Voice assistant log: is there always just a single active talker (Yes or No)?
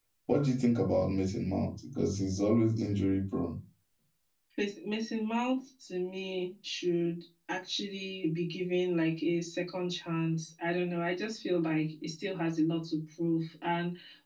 Yes